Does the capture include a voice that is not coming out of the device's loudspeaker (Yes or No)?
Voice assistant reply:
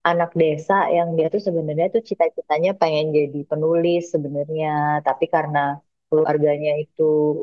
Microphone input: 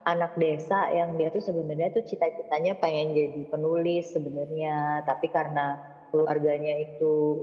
No